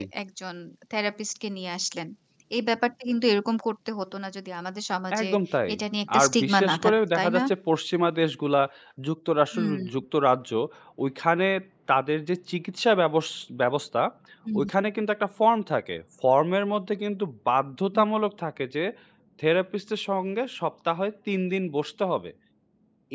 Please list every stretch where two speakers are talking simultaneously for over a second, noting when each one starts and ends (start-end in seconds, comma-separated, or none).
6.2-7.4